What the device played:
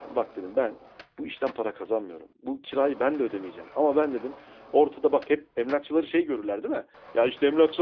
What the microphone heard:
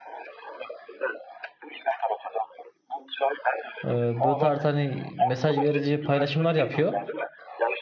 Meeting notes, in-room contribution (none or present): present